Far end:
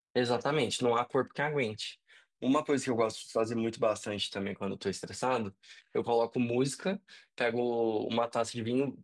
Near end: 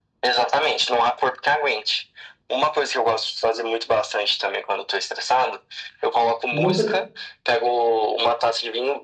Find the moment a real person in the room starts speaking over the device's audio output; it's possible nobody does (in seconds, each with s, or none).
6.5 s